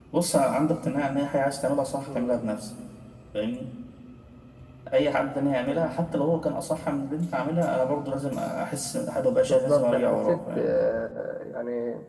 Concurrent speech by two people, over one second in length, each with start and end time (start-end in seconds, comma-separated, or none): 9.4-10.7